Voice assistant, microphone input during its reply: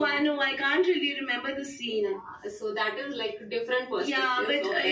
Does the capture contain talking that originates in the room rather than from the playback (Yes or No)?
Yes